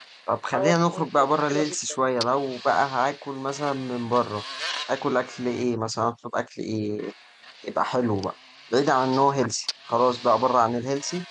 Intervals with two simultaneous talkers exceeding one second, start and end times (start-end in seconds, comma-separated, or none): 0.5-2.0